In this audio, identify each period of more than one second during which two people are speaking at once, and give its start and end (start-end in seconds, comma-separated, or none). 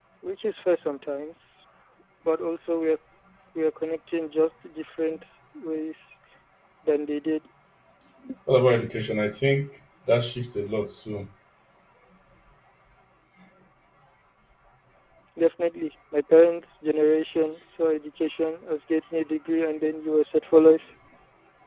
none